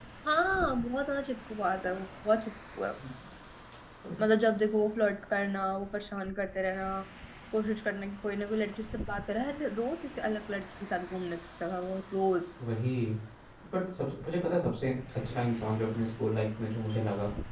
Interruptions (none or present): none